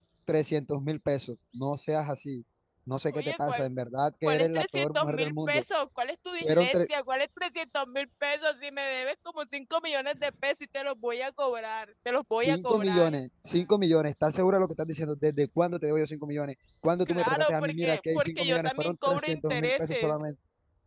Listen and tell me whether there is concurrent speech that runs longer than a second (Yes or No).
Yes